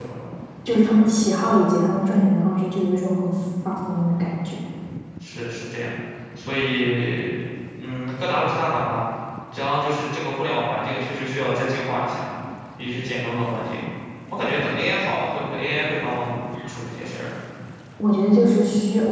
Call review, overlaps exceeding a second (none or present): none